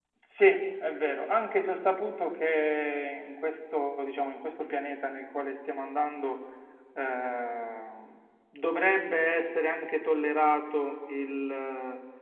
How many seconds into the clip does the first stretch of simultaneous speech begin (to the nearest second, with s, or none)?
none